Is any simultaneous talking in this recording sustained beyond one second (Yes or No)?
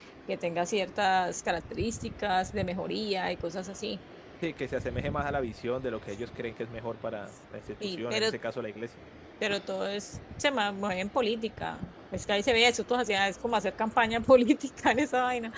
No